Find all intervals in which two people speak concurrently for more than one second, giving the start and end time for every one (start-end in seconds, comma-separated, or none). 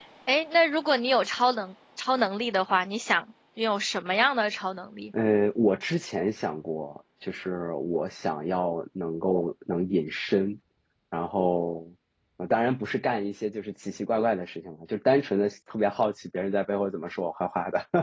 none